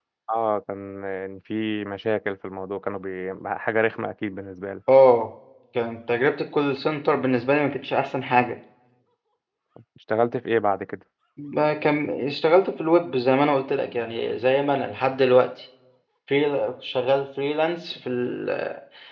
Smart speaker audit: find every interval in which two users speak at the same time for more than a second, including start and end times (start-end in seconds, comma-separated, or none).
none